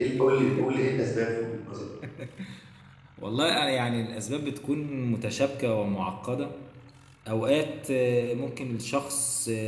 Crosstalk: none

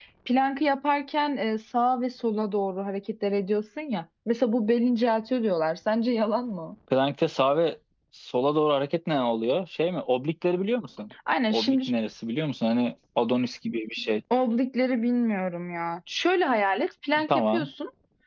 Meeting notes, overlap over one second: none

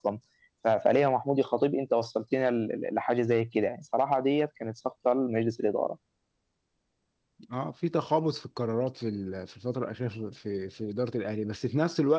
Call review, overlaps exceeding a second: none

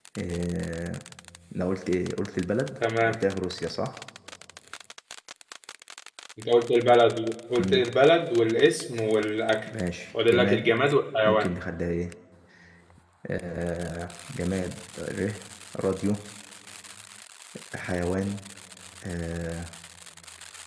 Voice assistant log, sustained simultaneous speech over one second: none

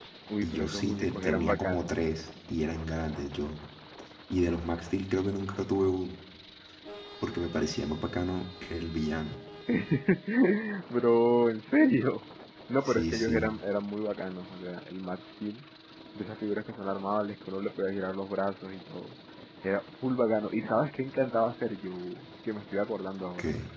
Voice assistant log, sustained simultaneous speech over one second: present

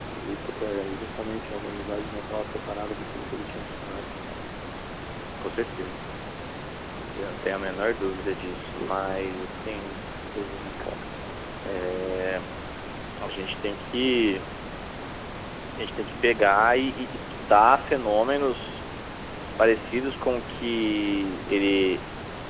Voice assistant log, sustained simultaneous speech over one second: none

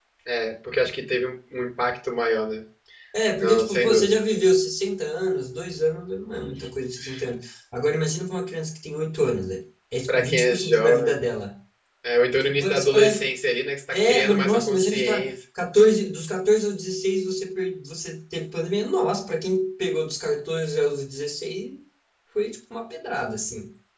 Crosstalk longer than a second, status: present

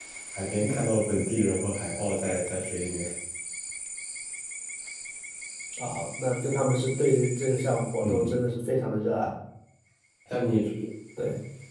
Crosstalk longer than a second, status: none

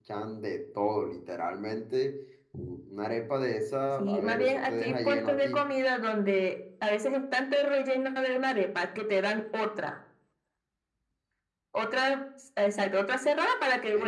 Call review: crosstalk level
present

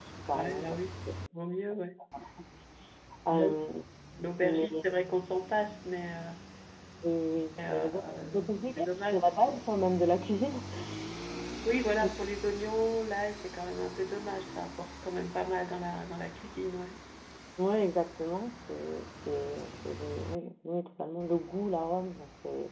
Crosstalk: present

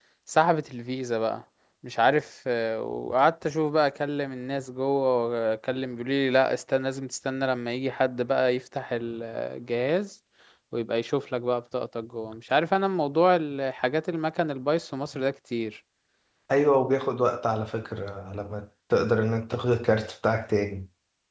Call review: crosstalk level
none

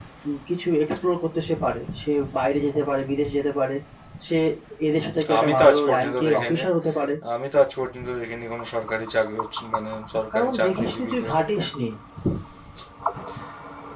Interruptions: present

